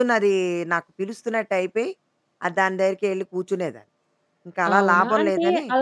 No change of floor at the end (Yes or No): No